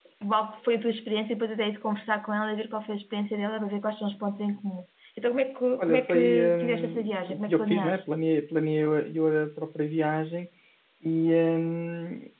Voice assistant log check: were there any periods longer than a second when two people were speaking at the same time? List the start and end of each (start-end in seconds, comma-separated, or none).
5.8-8.1